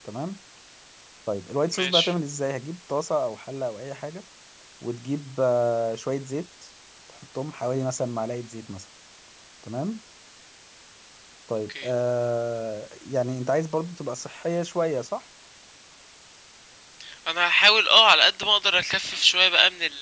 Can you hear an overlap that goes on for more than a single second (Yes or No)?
No